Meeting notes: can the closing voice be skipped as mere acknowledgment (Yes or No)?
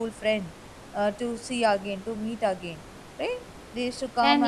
No